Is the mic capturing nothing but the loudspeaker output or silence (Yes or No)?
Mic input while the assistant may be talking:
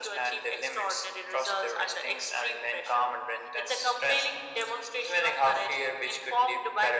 Yes